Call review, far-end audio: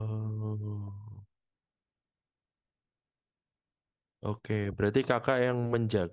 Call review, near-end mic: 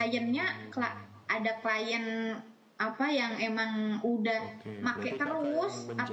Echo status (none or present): present